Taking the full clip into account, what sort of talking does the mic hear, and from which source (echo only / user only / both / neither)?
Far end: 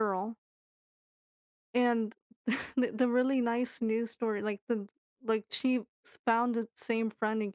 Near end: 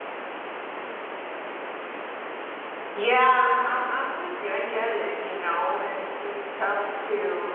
user only